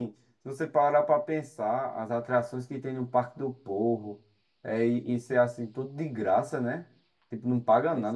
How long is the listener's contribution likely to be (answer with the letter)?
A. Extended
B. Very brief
B